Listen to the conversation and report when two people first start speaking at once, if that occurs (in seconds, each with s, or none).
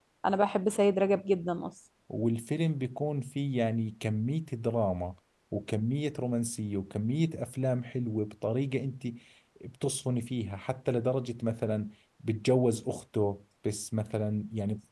none